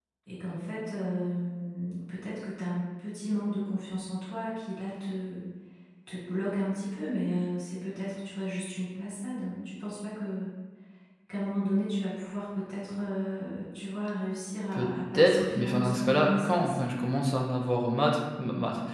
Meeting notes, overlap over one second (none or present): present